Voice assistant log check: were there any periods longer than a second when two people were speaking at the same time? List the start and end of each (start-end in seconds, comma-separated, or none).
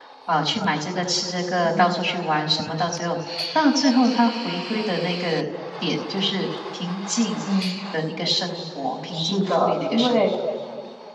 9.1-10.3